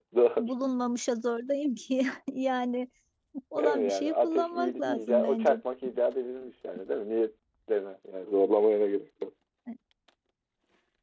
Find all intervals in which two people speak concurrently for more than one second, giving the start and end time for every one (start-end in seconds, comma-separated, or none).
3.6-5.5